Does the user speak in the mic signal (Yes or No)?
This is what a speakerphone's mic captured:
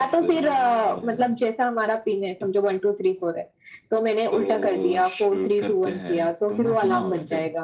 No